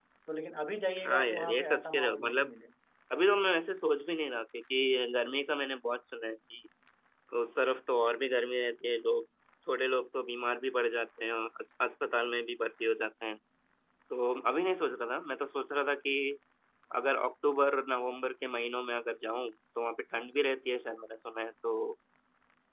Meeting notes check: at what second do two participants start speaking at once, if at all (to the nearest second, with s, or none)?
1 s